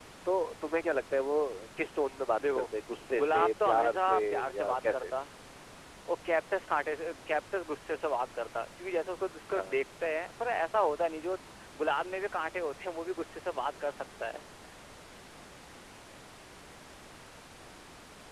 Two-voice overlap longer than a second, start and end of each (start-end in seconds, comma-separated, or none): 3.2-5.0